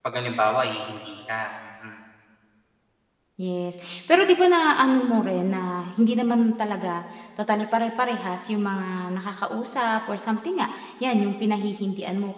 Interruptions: none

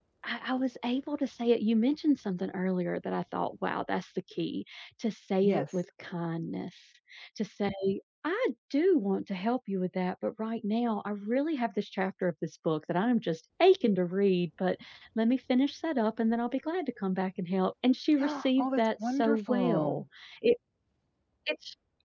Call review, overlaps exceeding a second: present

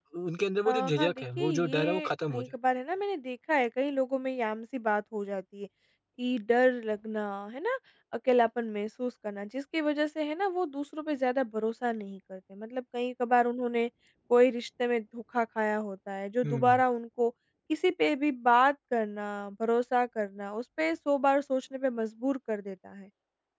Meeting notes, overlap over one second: present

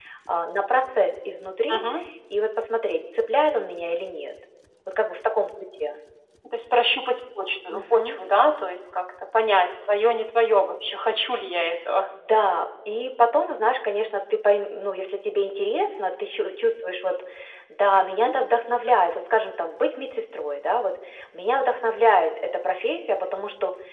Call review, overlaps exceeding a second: none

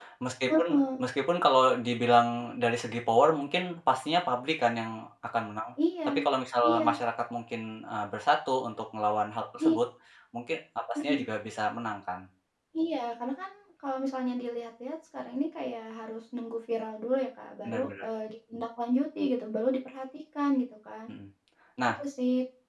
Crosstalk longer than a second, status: none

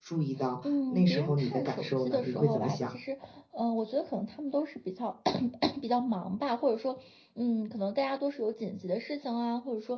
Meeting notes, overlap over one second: present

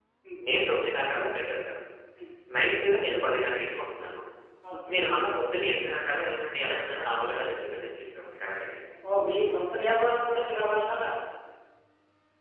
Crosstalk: none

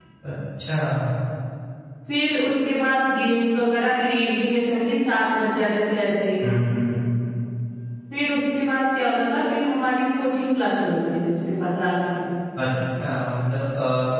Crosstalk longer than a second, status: none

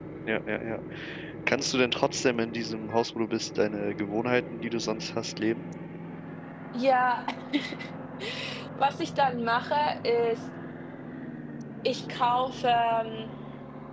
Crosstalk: none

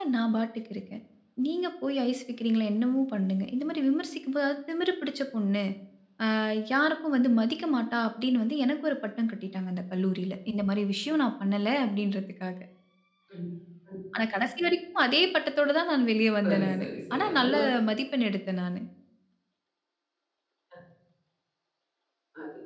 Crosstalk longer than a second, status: present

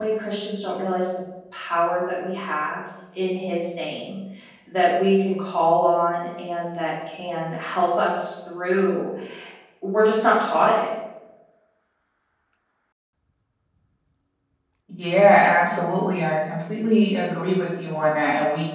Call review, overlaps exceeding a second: none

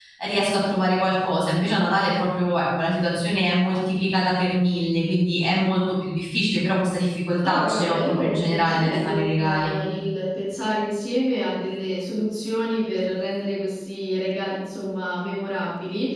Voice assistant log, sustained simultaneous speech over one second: present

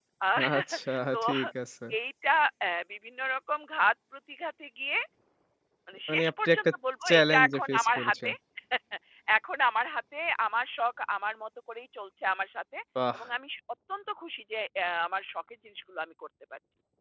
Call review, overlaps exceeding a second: present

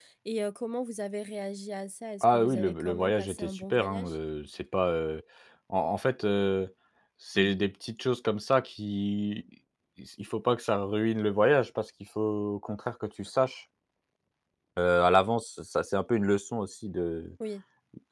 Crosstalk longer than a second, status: present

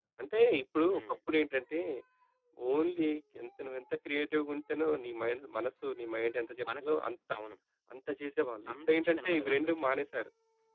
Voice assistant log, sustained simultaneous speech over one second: present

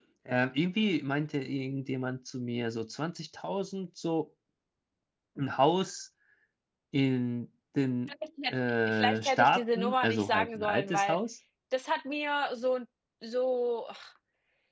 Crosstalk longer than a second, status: present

